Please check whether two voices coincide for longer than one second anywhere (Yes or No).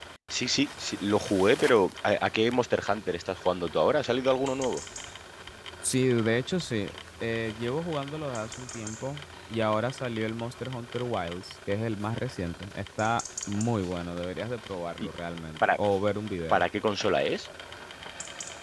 No